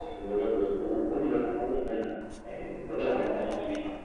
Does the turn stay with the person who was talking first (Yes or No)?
No